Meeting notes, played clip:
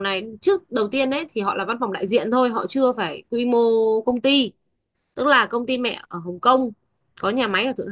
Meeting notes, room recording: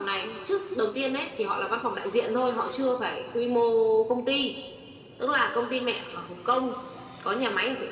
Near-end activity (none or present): none